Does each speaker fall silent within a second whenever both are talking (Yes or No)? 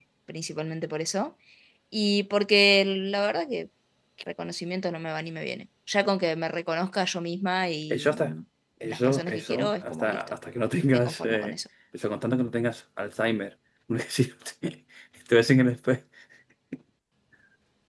No